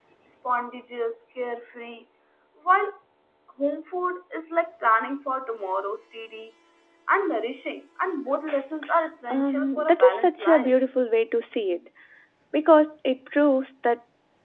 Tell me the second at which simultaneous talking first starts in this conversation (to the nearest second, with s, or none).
9 s